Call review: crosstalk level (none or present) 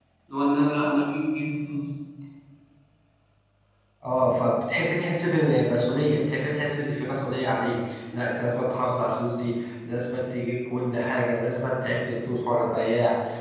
none